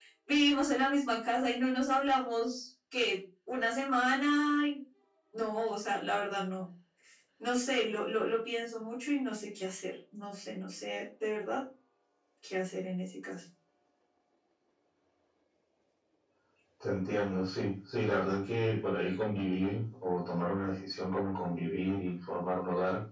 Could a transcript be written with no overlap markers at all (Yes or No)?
Yes